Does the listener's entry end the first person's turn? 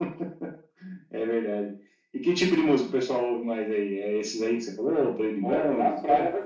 Yes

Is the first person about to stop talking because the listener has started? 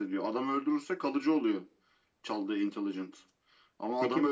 No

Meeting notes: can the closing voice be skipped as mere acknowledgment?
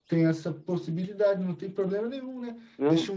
Yes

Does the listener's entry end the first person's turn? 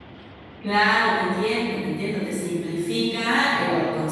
No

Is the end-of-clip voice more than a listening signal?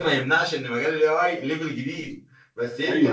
No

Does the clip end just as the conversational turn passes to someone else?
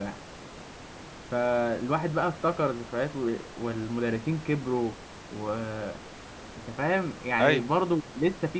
No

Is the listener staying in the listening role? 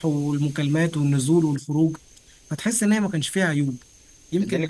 No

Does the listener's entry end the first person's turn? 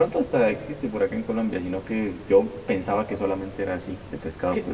Yes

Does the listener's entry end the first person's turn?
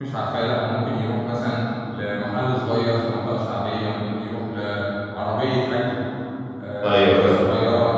No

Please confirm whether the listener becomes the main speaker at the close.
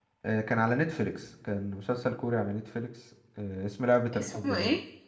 No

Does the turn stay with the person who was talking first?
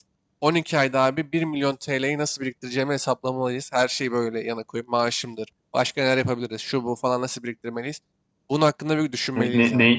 No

